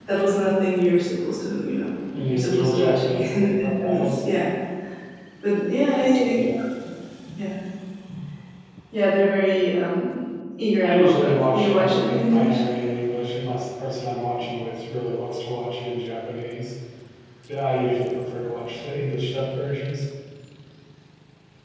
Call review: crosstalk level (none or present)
present